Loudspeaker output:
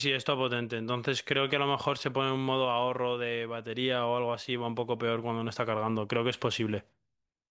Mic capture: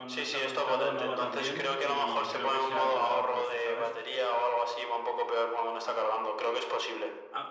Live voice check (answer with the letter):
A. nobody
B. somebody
B